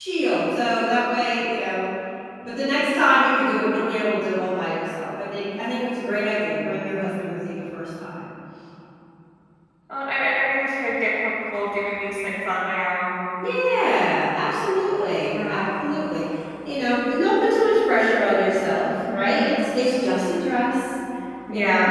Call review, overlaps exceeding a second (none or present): none